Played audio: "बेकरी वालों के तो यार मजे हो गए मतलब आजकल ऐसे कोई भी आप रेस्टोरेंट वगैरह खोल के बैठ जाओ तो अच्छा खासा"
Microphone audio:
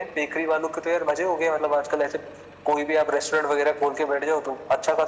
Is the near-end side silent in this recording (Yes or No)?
Yes